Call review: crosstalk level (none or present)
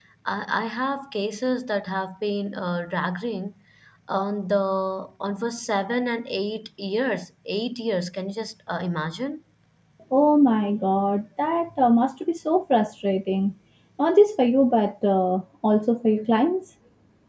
none